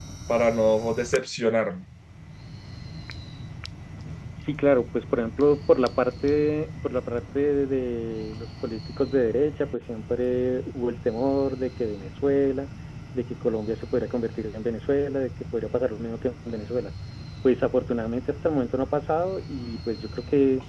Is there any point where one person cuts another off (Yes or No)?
No